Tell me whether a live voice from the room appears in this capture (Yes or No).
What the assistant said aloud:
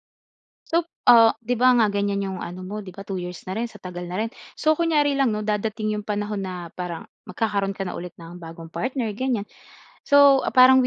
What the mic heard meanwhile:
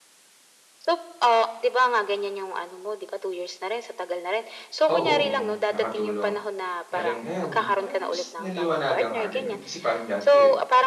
Yes